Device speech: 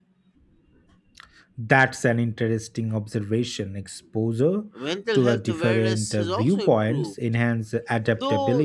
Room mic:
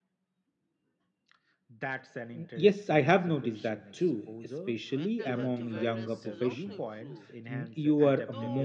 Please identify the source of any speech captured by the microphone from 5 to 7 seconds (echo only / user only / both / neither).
both